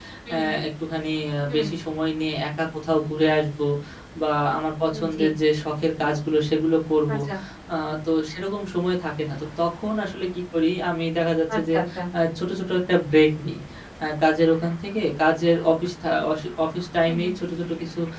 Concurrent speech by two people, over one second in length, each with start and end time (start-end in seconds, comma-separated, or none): none